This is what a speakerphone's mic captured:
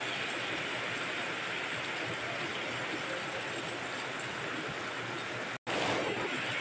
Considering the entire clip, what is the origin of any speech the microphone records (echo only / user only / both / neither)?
neither